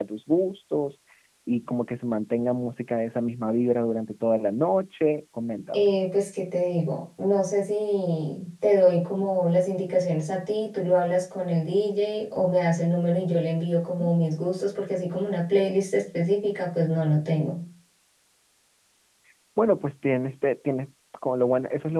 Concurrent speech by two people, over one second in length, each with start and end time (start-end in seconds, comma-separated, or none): none